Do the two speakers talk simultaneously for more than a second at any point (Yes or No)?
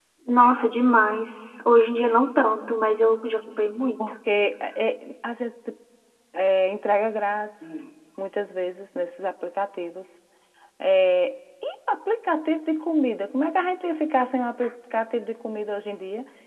No